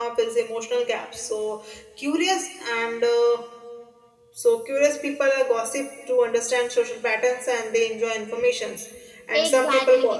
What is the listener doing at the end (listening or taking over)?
taking over